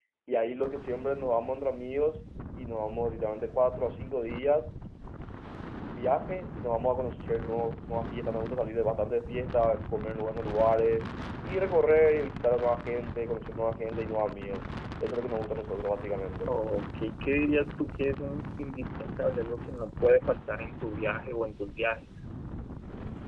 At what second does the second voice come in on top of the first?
none

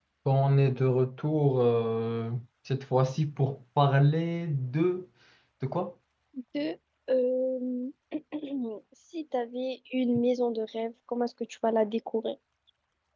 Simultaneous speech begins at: none

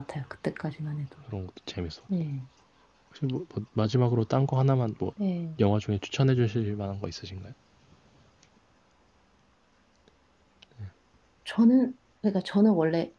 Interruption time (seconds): none

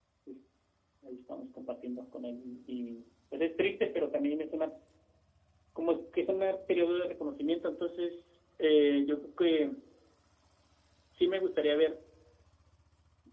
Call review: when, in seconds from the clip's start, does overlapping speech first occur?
none

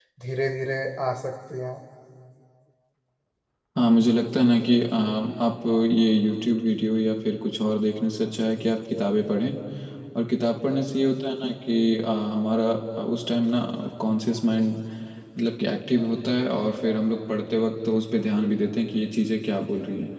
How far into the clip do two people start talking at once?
none

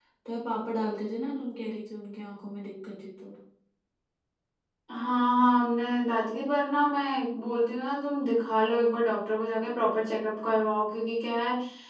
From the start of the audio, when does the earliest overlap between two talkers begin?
none

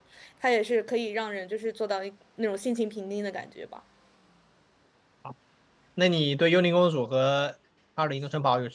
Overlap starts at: none

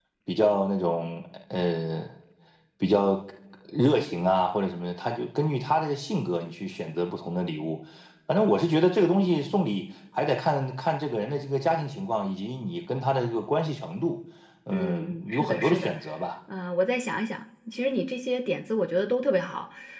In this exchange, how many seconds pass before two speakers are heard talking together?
14.7 s

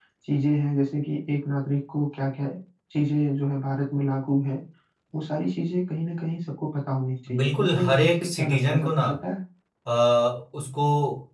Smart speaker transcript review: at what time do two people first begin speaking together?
7.3 s

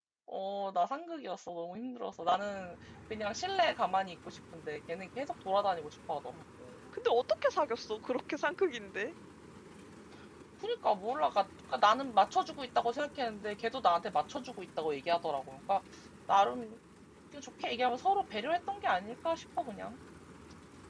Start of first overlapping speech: none

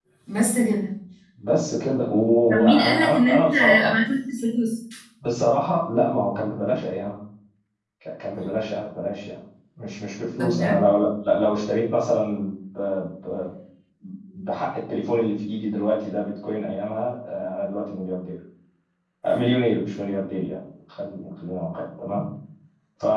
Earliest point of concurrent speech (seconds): 2.5 s

